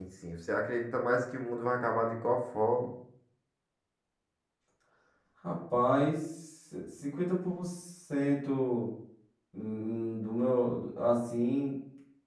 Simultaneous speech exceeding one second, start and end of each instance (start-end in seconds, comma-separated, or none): none